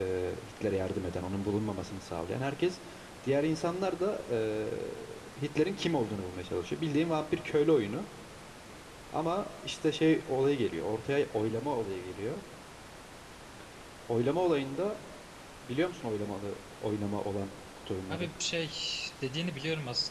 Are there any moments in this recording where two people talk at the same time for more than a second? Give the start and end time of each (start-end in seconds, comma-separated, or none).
none